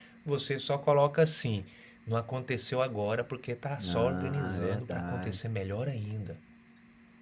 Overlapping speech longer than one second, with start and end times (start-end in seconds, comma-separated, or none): 3.8-5.4